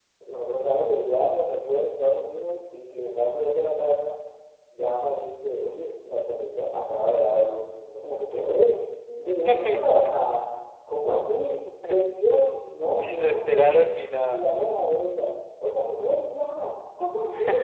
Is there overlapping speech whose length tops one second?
Yes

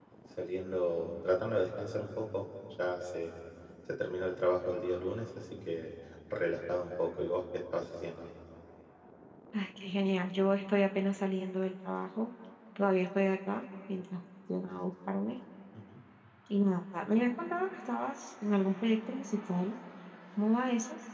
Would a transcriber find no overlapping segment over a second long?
Yes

